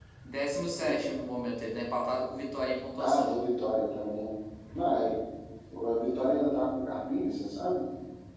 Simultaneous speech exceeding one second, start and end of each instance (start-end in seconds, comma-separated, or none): none